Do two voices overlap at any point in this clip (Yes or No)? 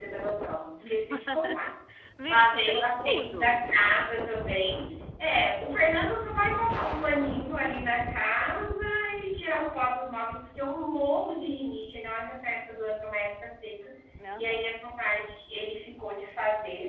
Yes